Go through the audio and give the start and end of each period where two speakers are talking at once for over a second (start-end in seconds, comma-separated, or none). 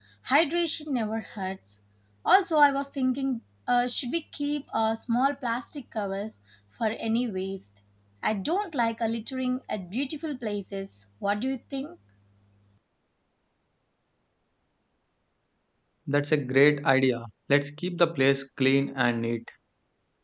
none